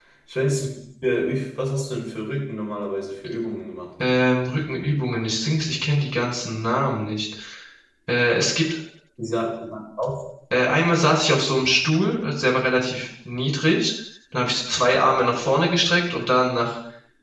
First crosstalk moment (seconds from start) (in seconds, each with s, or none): none